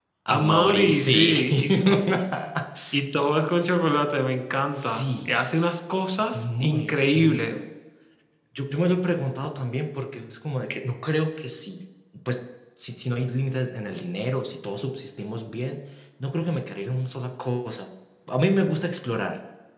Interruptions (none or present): present